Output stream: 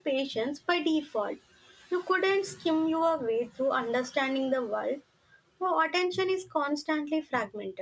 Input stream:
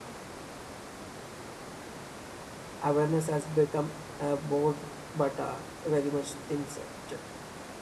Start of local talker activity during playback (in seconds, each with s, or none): 2.8 s